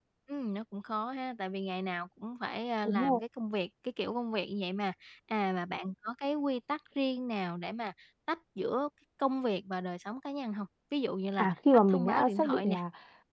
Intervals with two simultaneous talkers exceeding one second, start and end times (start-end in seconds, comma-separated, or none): 11.4-12.8